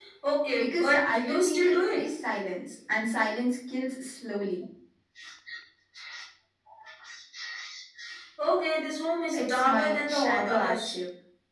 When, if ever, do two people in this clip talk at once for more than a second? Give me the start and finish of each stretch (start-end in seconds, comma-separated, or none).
0.5-2.0, 9.3-10.9